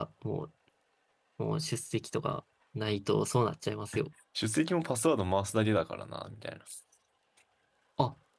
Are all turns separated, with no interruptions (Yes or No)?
Yes